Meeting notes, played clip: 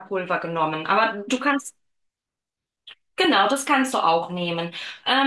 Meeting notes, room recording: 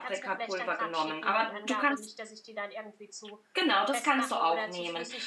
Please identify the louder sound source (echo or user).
echo